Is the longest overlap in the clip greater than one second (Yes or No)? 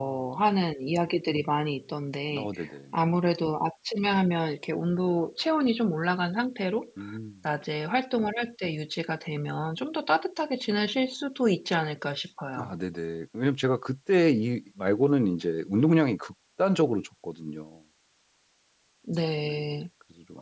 No